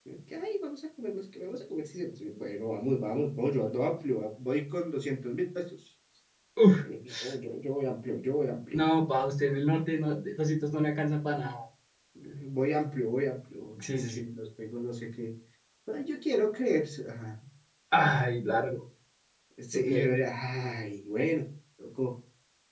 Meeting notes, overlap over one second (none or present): none